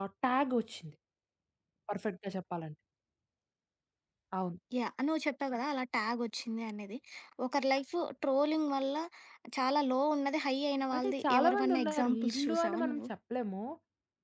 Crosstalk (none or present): present